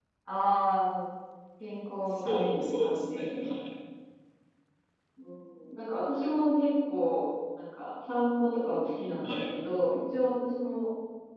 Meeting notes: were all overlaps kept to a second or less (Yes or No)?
No